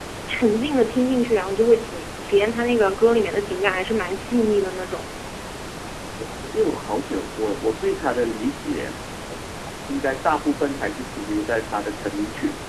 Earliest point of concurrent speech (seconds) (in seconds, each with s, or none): none